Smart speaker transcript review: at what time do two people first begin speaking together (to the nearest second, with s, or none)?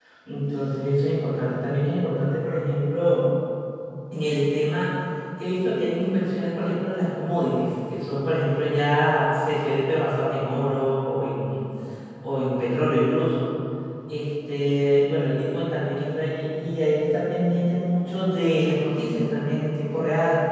none